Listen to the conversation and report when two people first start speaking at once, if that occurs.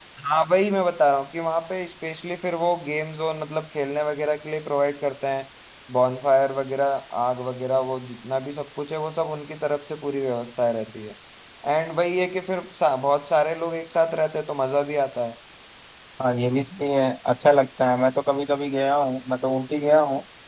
none

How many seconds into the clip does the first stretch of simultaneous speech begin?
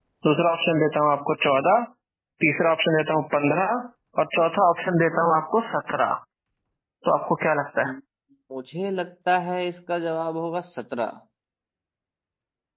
none

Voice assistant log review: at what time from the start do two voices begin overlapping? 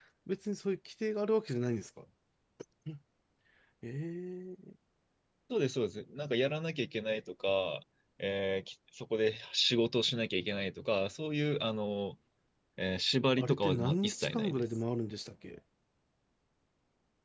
13.4 s

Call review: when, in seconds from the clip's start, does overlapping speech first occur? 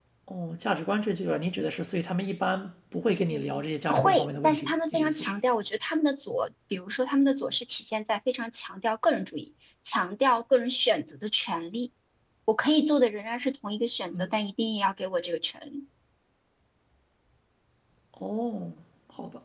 3.9 s

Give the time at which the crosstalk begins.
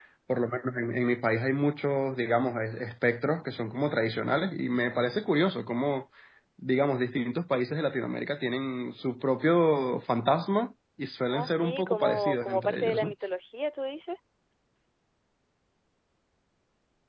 11.3 s

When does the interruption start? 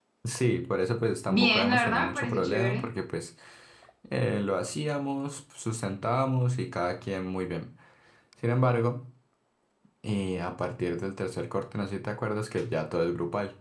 1.3 s

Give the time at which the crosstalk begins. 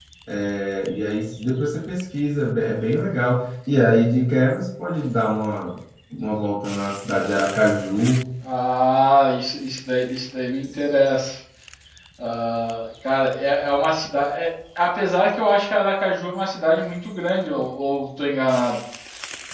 none

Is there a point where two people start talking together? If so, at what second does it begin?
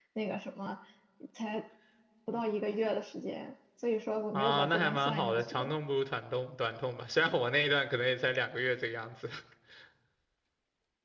4.3 s

